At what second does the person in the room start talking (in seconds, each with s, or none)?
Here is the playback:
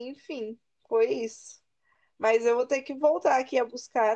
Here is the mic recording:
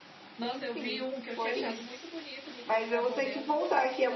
0.4 s